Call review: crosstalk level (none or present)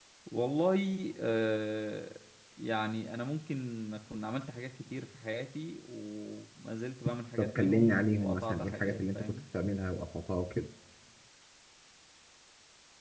present